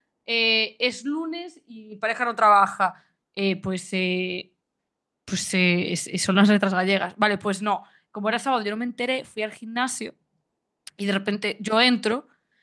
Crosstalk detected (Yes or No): No